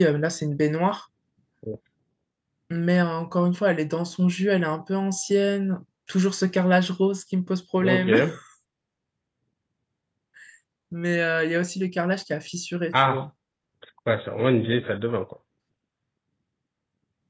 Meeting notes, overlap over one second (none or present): none